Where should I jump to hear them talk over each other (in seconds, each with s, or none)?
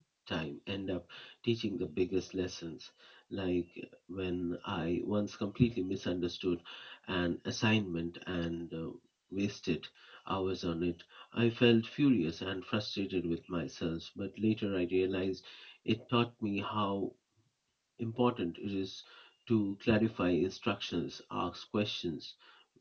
none